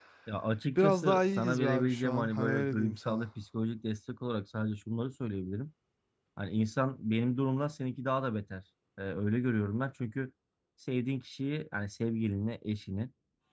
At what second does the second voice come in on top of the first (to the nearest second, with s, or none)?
1 s